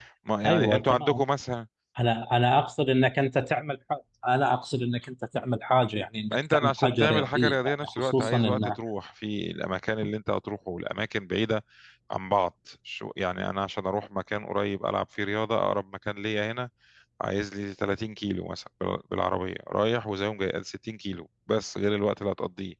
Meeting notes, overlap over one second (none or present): present